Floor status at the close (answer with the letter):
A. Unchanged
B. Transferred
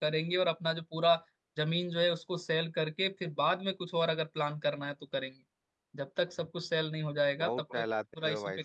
B